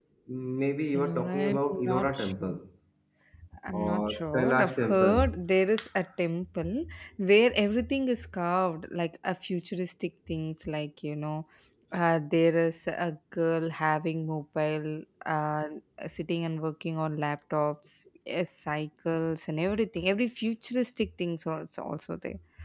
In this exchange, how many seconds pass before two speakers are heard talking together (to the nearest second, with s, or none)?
1 s